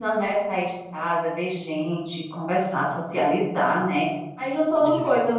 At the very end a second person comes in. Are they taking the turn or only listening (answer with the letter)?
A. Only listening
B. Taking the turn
A